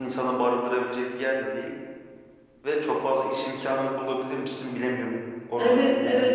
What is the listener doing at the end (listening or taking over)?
taking over